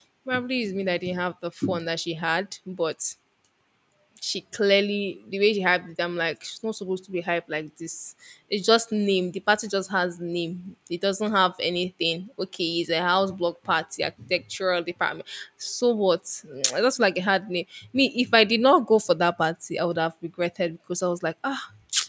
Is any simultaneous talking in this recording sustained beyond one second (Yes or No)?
No